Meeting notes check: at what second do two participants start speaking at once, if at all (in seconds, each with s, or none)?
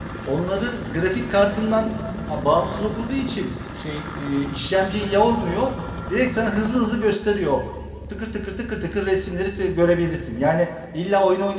none